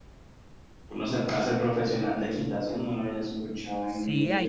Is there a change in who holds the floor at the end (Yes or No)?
Yes